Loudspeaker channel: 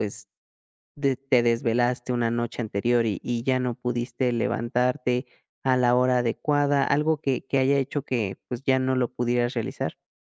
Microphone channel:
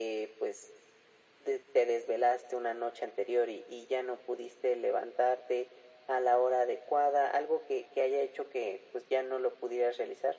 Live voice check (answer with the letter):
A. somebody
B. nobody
B